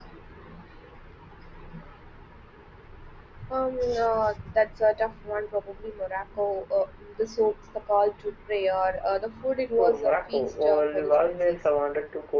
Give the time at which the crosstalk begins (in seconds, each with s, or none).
9.8 s